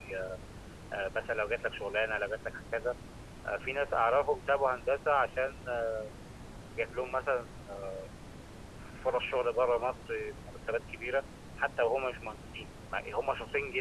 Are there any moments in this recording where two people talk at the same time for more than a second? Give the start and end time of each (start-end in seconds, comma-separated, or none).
none